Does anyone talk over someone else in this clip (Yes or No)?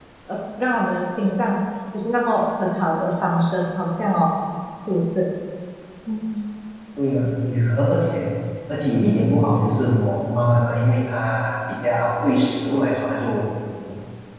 No